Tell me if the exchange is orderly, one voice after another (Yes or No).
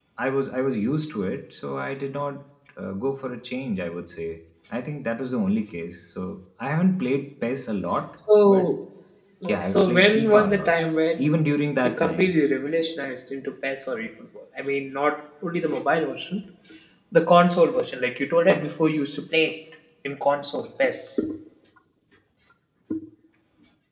No